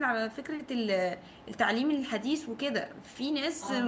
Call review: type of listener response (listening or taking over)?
listening